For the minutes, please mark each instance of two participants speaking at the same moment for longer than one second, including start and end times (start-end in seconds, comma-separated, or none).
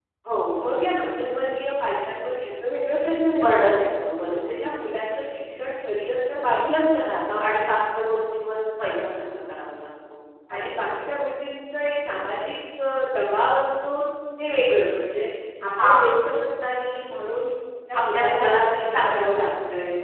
17.9-19.5